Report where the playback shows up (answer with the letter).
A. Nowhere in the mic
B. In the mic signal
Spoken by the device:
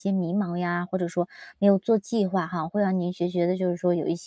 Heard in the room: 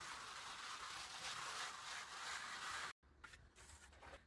A